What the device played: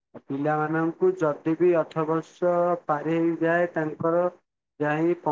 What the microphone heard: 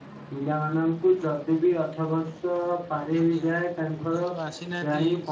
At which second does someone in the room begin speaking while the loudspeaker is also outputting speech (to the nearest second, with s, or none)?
3 s